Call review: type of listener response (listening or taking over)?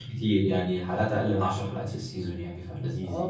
taking over